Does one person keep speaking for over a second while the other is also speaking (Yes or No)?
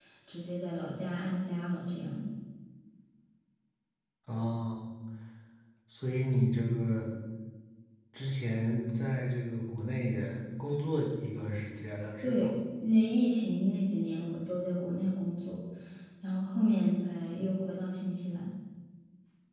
No